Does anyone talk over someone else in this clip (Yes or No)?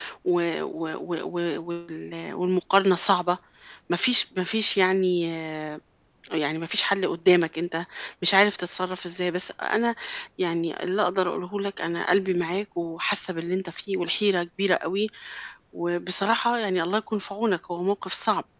No